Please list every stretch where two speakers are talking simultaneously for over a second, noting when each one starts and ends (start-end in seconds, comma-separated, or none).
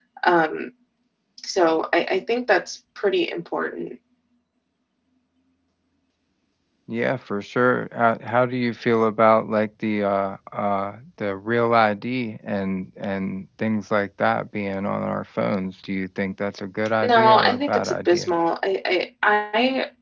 17.0-18.4